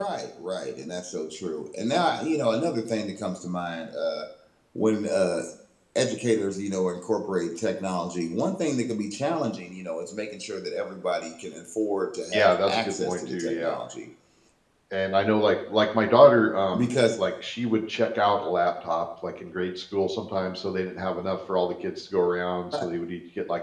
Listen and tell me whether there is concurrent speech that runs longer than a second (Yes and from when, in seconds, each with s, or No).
Yes, from 12.3 s